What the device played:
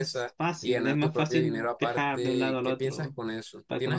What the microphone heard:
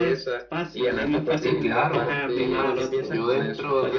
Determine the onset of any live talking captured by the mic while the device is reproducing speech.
1.4 s

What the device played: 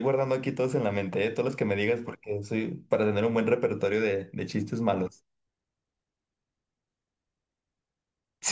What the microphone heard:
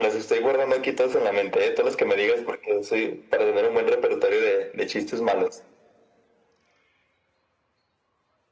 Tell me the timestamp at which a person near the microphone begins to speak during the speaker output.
none

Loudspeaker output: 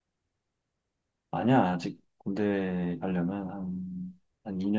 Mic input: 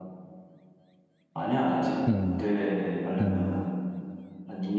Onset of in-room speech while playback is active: 2.0 s

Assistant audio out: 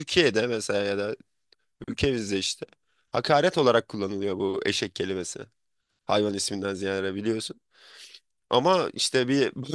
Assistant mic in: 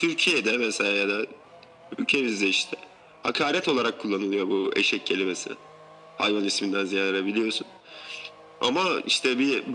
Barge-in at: none

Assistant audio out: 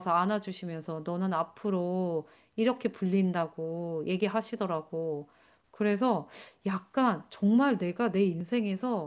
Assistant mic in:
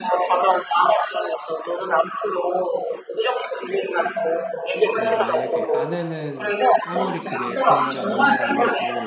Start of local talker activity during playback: 4.9 s

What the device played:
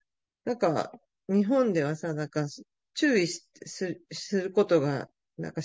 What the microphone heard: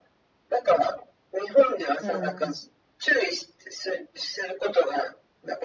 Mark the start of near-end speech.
2.0 s

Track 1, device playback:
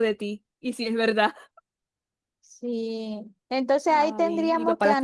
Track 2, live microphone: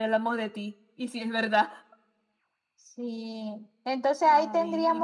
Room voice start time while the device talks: none

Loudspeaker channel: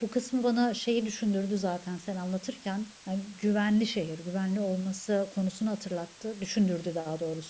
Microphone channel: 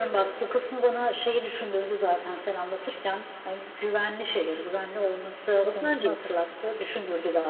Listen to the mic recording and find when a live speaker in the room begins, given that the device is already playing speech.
5.6 s

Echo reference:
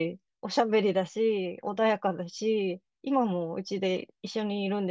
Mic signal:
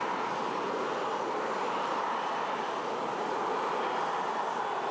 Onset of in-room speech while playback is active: none

